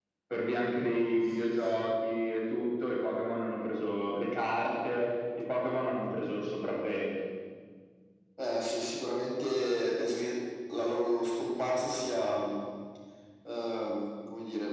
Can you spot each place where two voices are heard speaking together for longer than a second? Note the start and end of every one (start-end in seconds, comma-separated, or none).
none